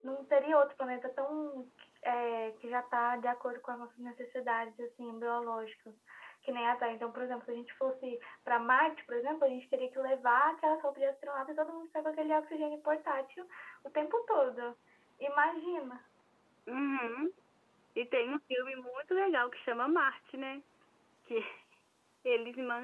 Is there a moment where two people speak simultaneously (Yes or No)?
No